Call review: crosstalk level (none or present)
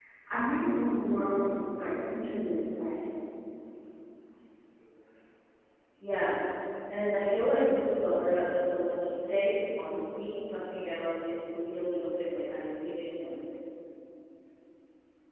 none